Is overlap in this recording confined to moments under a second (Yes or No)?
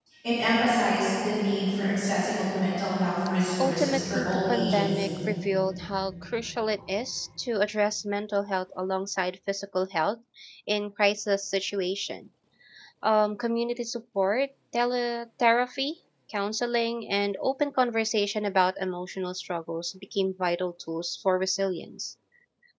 No